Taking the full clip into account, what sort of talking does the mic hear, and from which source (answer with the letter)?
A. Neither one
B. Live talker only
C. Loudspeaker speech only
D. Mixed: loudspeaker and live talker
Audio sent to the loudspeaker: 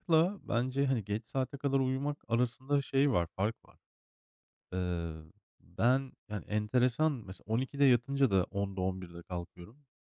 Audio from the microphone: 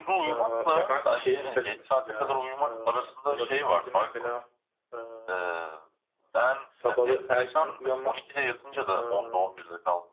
D